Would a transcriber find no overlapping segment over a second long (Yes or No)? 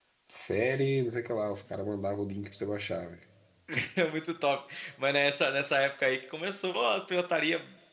Yes